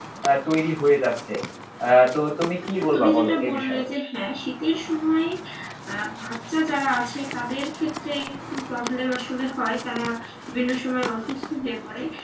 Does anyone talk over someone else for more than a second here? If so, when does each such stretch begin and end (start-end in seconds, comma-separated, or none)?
2.6-3.8